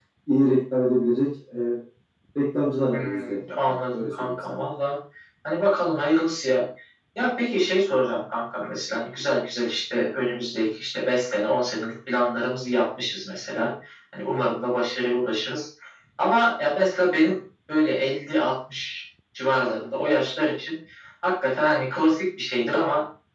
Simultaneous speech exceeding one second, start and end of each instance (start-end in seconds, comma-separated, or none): 2.9-4.3